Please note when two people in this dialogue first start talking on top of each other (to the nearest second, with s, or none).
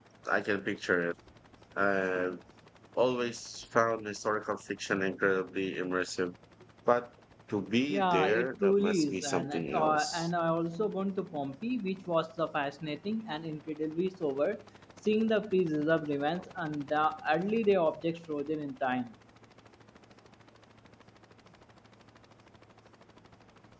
8 s